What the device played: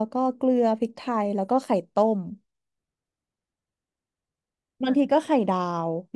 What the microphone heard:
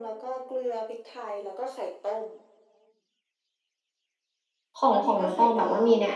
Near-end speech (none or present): present